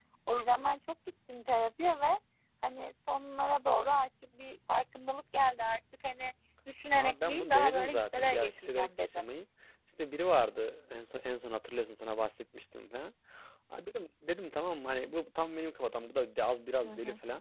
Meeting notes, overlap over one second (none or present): present